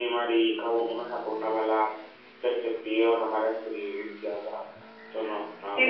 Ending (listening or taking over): taking over